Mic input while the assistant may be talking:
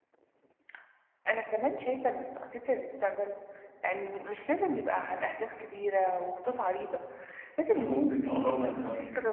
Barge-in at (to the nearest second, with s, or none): 8 s